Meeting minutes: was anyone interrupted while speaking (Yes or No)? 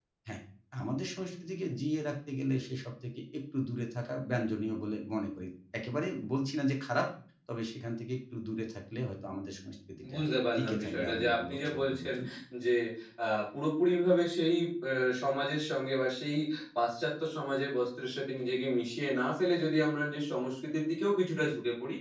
Yes